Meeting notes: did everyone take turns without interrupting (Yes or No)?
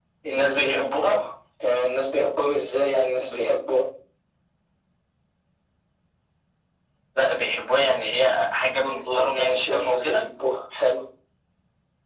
No